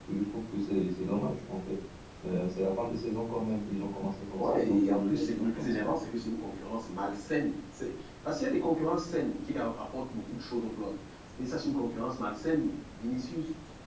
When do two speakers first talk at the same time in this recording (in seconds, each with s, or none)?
4.3 s